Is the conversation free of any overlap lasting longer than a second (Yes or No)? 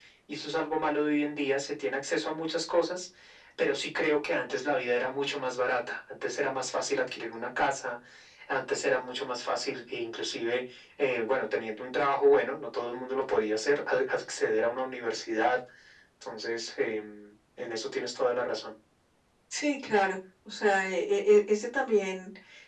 Yes